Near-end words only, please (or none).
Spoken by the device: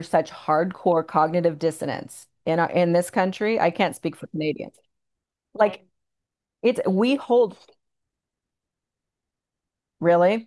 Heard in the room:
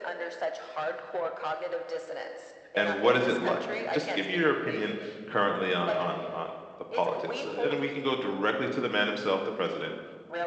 And what is it like? Just give me your opinion currently on on on the politics, and we can go directly to the man himself, the president.